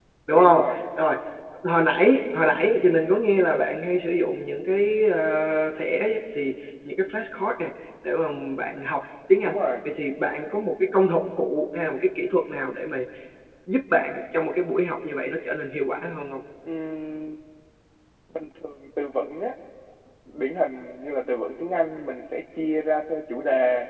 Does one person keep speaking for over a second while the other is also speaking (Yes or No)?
No